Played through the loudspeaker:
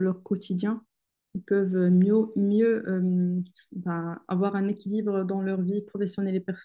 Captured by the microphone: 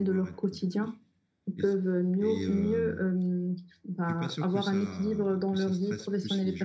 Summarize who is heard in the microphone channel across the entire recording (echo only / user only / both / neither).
both